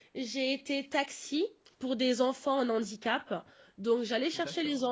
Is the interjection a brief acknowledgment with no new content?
Yes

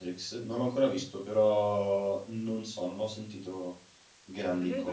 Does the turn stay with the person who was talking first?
No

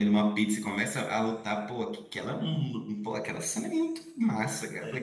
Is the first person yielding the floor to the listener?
No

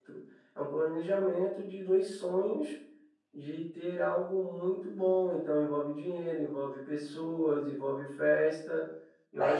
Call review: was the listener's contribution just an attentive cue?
No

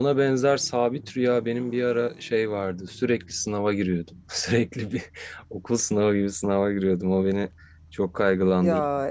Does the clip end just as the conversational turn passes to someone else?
No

